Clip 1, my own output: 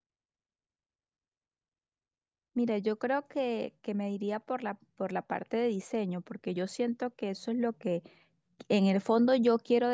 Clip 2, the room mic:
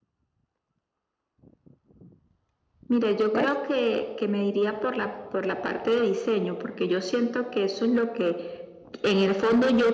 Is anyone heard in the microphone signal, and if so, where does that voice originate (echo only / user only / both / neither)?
both